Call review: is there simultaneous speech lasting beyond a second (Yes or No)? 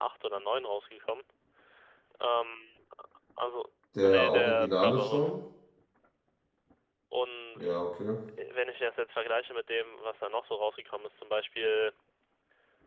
Yes